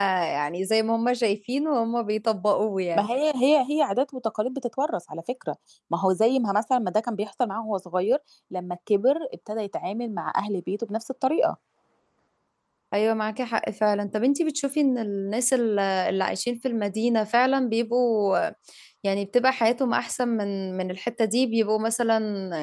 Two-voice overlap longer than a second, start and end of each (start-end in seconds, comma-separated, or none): none